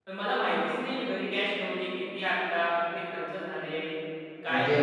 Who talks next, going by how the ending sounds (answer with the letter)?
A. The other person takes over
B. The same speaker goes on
A